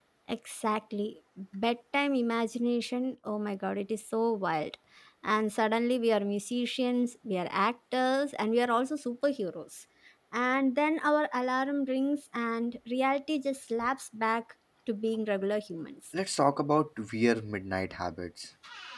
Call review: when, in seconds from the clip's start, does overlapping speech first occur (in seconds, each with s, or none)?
none